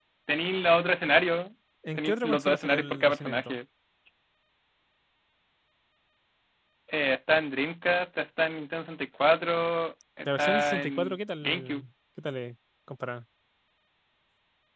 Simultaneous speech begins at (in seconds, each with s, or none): 2.0 s